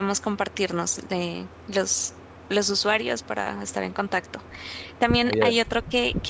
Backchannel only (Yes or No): Yes